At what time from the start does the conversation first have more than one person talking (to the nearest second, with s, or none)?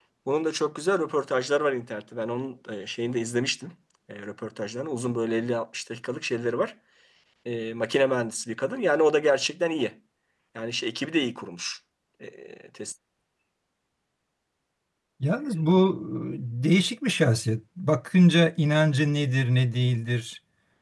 none